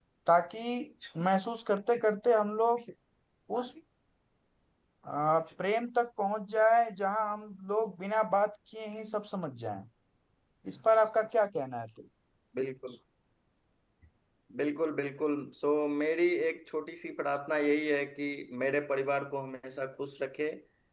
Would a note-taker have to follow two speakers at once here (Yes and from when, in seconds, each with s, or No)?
No